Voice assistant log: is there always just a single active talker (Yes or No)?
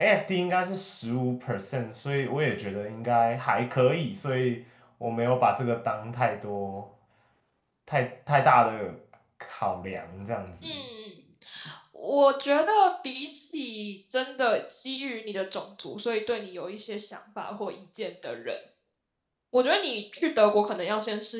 Yes